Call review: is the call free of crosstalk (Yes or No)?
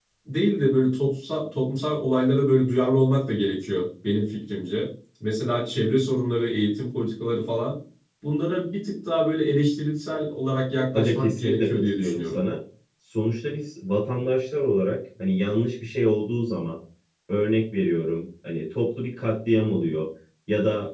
No